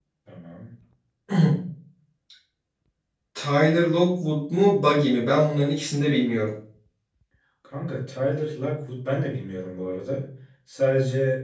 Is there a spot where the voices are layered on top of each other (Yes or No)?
No